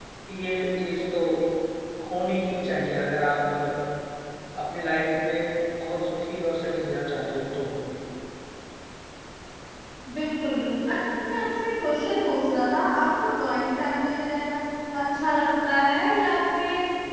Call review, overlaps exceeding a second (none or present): none